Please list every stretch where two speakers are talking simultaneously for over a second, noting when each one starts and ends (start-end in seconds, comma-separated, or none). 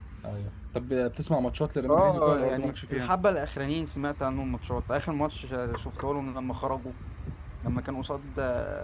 1.9-3.1